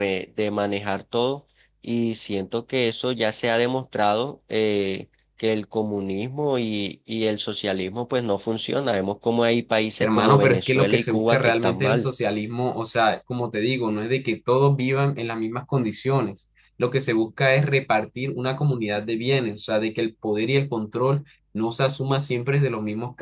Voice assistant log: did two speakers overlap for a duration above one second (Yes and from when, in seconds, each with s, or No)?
Yes, from 10.0 s